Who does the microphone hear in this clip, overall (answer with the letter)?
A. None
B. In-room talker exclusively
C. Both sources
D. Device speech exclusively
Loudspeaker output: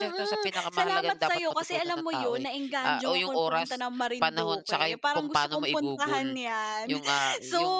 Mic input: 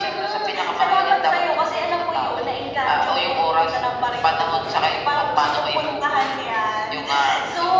D